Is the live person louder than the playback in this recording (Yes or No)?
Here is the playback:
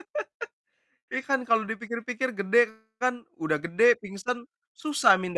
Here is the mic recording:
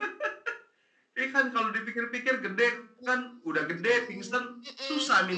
No